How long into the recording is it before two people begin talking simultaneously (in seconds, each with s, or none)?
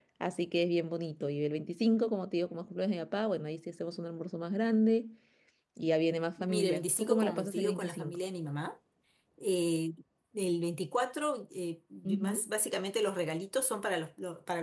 6.4 s